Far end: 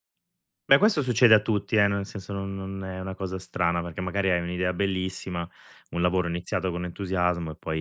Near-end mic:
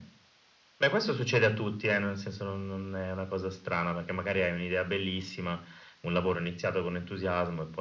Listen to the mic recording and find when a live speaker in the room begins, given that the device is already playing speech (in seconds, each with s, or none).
none